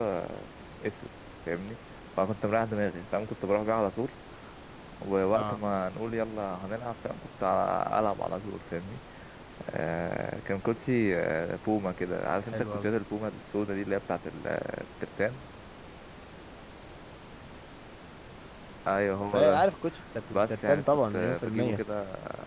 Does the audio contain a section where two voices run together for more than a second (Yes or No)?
Yes